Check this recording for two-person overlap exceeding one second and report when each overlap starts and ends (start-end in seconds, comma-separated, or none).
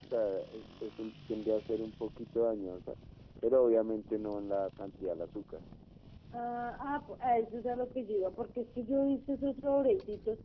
none